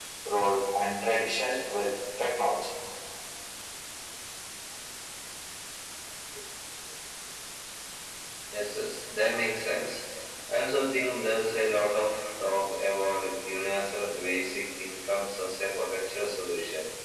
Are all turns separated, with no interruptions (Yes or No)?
Yes